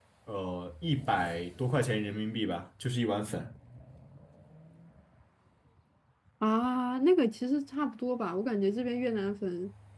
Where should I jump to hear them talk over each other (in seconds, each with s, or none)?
none